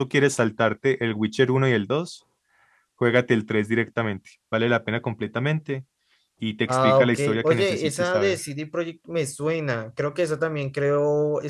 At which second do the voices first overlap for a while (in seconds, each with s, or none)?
6.7 s